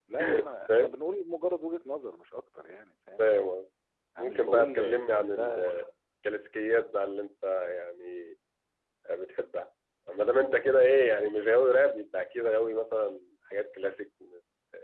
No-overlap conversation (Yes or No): No